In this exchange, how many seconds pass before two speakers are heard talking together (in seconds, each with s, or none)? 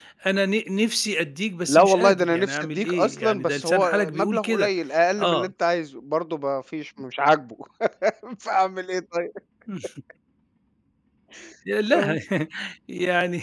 1.7 s